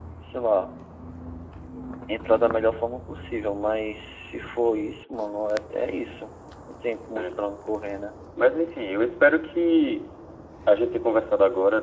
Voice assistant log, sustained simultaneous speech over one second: none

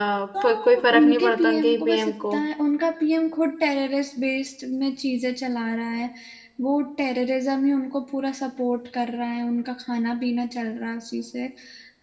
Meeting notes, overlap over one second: present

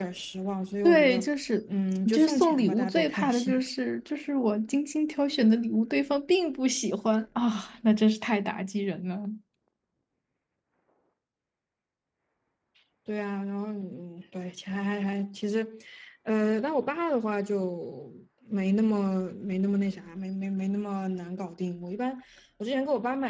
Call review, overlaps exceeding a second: present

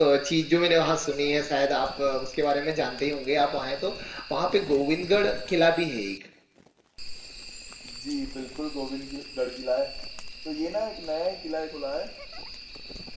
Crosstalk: none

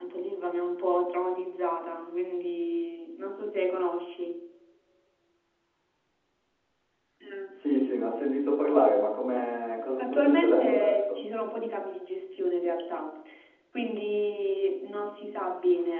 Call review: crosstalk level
present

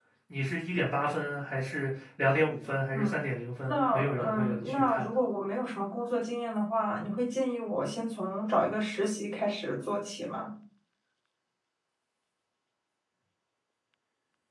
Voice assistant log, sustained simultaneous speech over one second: present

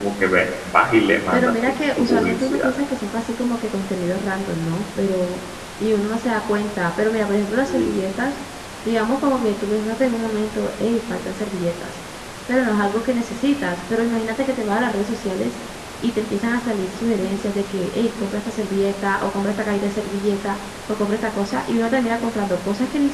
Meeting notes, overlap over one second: present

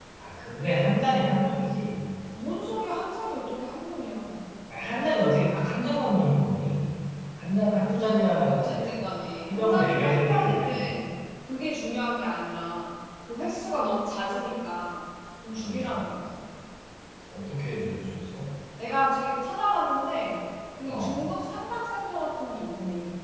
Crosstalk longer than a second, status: present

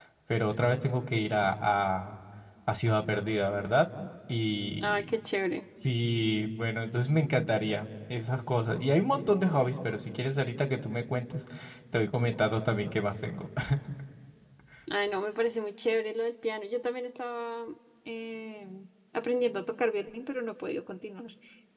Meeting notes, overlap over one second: none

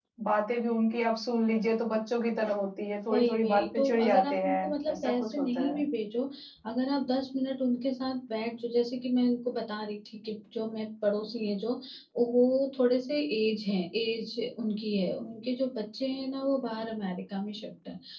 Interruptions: present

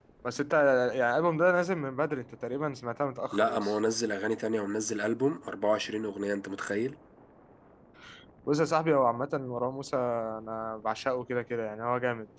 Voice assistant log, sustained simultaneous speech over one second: none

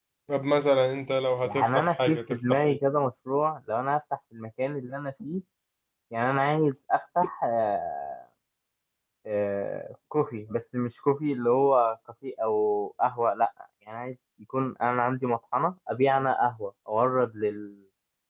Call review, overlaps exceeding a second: present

